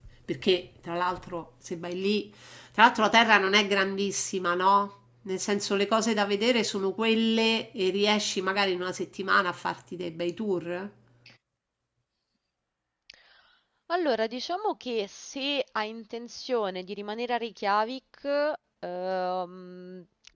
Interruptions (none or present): none